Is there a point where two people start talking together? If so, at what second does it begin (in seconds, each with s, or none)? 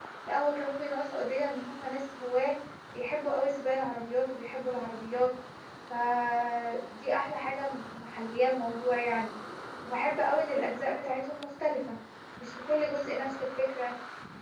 none